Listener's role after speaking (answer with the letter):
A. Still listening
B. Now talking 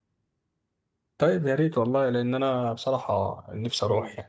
B